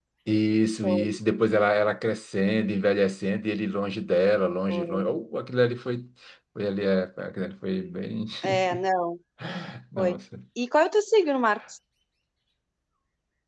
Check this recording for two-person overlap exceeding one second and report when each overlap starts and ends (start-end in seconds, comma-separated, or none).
none